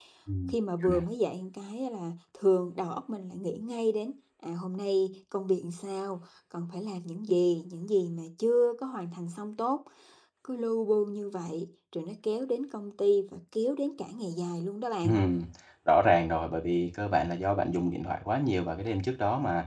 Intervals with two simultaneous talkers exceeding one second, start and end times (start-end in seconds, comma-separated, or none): none